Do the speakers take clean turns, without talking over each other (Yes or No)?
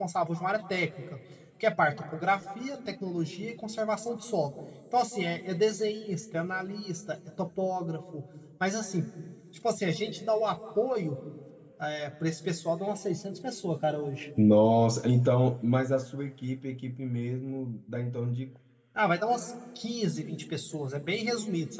Yes